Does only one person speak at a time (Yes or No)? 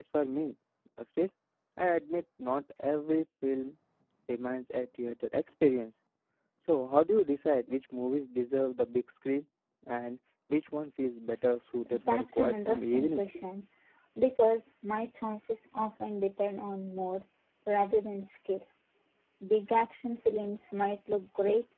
No